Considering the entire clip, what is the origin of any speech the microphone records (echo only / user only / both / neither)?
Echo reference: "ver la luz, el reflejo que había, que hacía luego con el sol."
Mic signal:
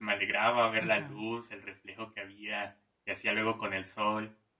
both